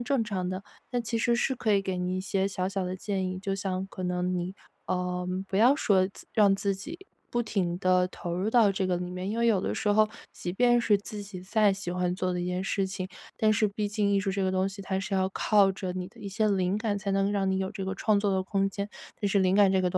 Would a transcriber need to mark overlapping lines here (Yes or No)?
No